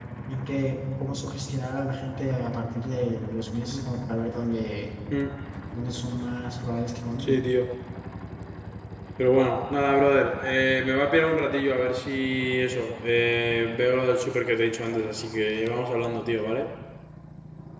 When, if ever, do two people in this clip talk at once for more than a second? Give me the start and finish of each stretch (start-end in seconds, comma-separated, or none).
none